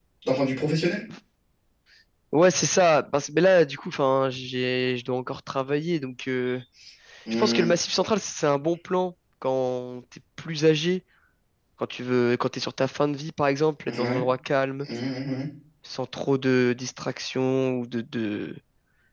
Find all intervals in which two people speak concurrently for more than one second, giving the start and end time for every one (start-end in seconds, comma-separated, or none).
none